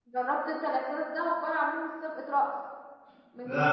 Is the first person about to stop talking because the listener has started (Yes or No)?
No